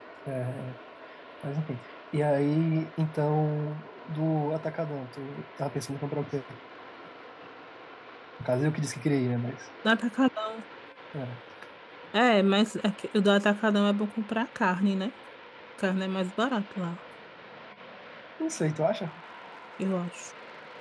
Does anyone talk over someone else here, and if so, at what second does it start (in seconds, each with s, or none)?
none